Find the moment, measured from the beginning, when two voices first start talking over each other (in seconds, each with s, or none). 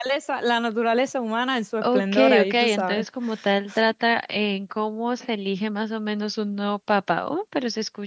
1.8 s